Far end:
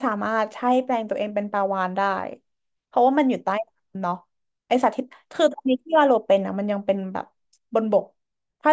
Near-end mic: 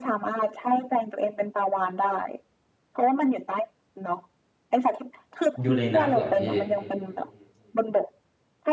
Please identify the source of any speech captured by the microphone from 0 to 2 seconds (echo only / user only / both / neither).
echo only